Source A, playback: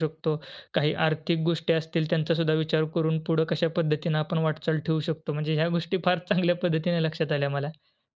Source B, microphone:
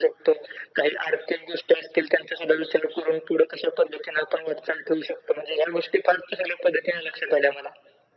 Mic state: echo only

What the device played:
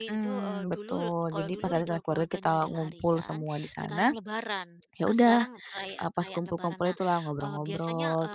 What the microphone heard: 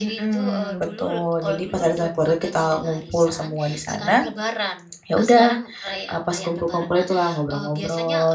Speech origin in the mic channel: echo only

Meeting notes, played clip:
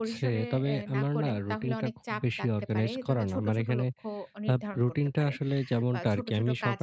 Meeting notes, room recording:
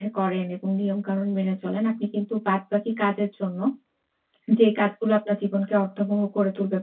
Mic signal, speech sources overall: user only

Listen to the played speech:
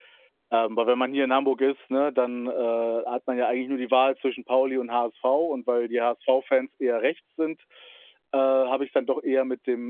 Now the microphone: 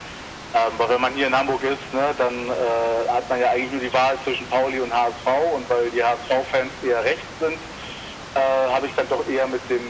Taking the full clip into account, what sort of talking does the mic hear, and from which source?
echo only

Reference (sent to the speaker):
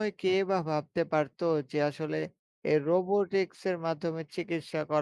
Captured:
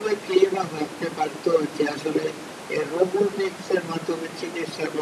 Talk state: echo only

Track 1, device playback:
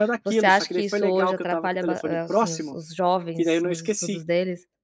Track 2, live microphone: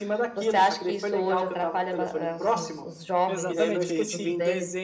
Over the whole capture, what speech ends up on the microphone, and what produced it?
both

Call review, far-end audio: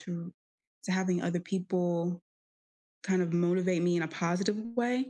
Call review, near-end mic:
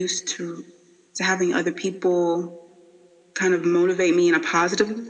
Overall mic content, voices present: echo only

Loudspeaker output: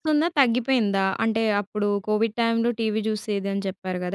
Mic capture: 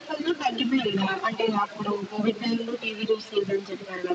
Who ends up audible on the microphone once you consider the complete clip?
echo only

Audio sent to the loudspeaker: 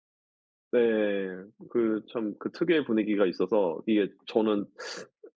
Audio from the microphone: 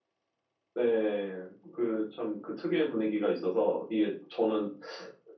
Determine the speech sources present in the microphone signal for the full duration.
echo only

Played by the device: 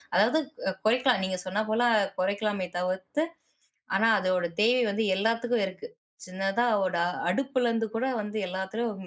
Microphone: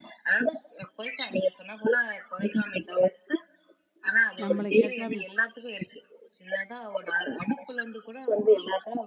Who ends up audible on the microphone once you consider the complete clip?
both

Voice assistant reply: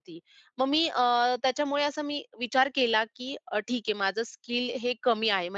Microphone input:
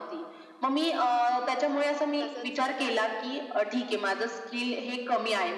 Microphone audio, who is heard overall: both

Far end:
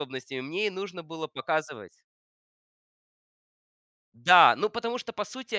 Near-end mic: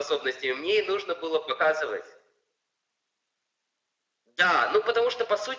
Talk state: echo only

